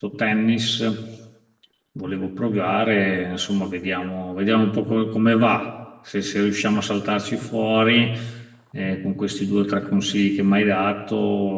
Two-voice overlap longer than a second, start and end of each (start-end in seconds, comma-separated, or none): none